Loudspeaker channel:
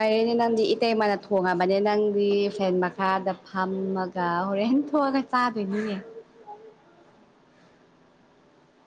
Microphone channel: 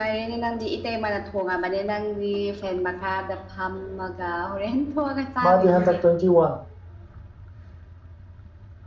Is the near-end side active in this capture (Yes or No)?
Yes